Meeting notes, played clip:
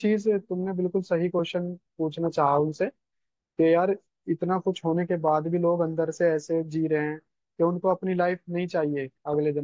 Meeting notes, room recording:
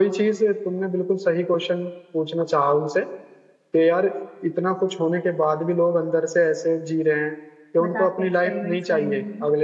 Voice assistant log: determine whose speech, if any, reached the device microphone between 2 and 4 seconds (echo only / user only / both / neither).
echo only